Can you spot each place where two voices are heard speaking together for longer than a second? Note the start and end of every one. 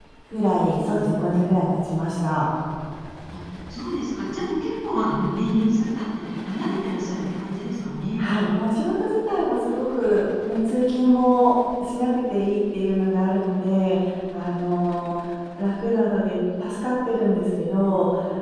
none

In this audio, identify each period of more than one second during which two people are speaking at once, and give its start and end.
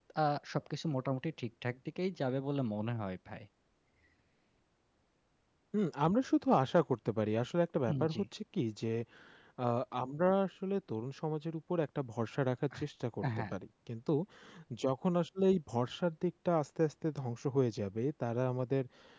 none

